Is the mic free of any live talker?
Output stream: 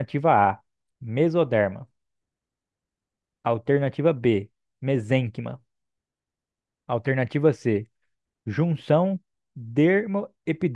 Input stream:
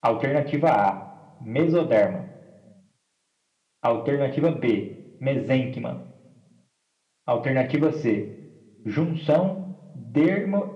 Yes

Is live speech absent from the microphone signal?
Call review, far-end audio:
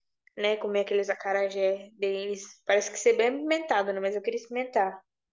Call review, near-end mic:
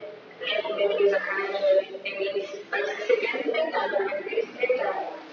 Yes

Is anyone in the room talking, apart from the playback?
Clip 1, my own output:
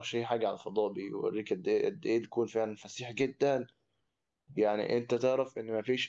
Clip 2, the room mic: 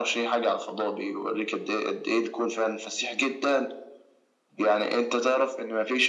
No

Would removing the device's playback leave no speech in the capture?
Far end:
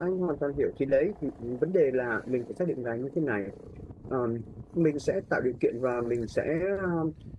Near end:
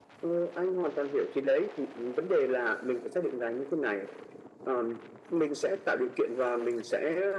Yes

